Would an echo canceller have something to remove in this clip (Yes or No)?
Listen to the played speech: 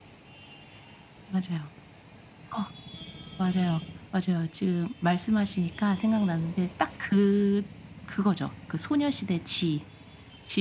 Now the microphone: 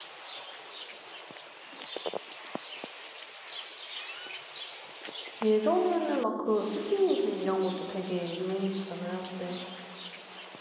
No